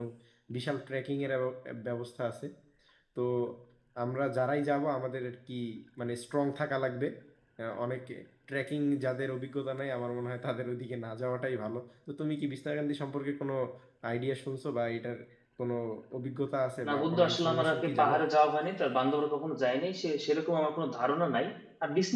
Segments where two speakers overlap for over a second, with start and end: 16.9-18.1

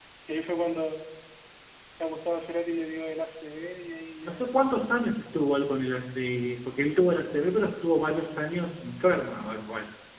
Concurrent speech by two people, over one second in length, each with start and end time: none

